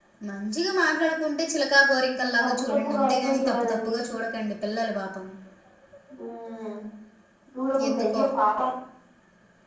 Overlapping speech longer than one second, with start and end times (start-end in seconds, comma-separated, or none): 2.4-3.9